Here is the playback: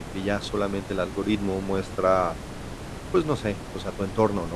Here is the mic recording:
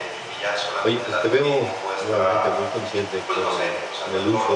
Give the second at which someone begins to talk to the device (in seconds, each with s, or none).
0.8 s